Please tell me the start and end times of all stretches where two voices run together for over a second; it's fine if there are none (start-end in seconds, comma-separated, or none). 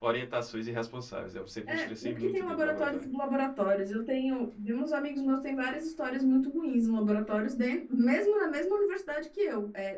1.7-3.0